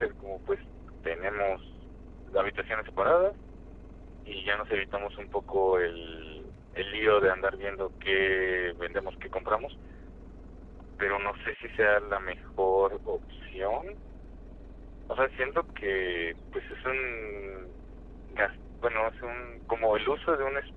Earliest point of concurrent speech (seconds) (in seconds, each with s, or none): none